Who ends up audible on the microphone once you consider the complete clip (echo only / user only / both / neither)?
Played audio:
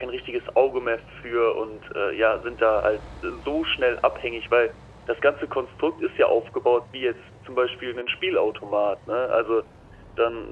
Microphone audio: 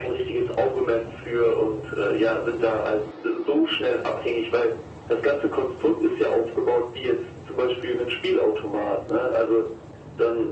echo only